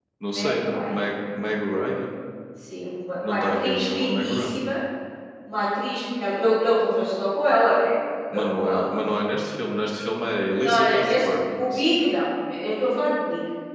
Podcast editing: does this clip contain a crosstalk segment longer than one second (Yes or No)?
Yes